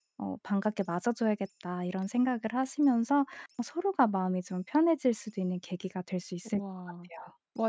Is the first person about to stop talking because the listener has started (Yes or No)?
Yes